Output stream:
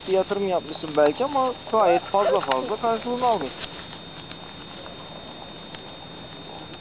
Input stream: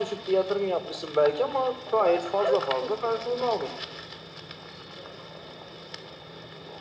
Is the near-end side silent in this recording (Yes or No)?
Yes